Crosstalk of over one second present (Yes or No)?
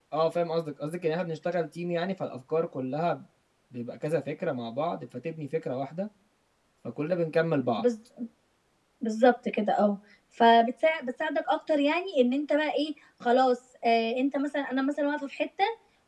No